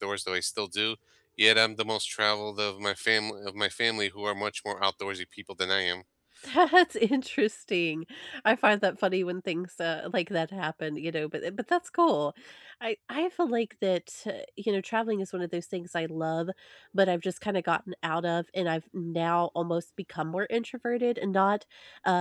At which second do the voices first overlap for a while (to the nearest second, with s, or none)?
none